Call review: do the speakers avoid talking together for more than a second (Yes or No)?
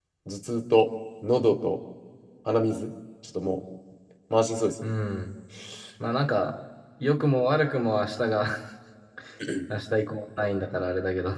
Yes